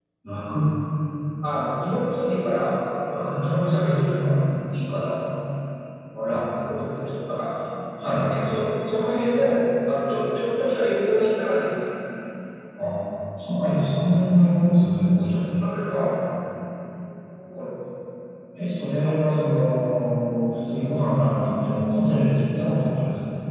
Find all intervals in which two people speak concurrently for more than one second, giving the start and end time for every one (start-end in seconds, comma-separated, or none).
3.1-4.4